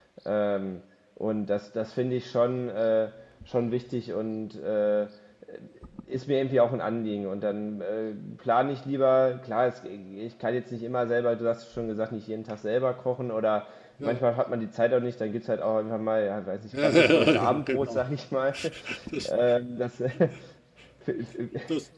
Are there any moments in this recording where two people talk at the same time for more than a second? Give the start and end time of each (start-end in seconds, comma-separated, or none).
16.8-18.0